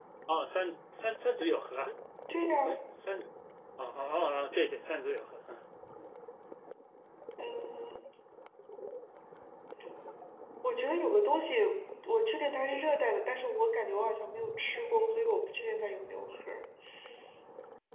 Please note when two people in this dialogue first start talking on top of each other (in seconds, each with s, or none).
none